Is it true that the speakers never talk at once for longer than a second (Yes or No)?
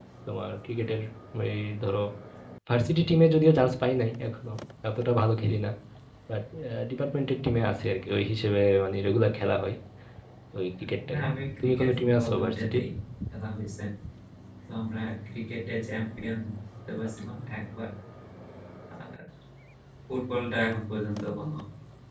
No